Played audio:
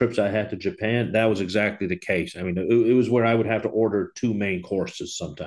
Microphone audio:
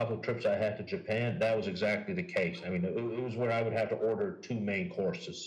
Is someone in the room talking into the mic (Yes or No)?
No